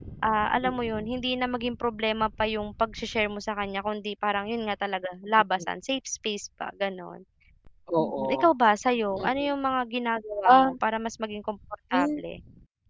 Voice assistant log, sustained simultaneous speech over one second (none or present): none